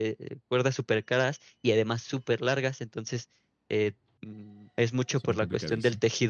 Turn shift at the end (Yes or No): No